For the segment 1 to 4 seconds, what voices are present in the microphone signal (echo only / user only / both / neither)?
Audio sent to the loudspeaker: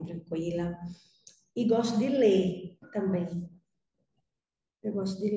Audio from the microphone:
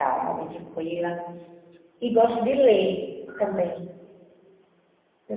echo only